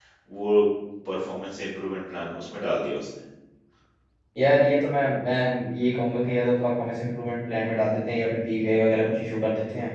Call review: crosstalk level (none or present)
none